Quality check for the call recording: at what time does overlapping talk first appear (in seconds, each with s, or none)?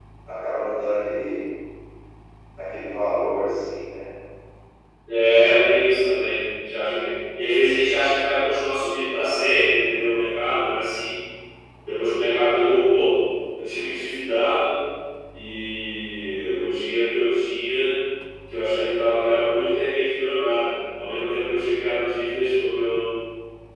none